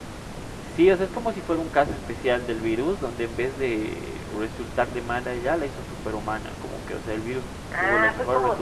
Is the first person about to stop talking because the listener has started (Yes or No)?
Yes